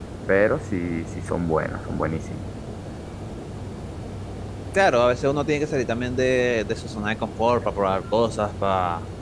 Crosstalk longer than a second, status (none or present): none